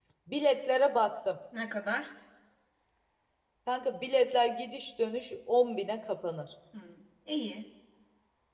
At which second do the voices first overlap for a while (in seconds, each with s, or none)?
none